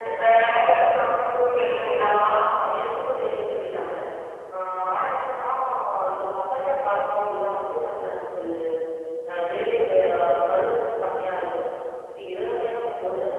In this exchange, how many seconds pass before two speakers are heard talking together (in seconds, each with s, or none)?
none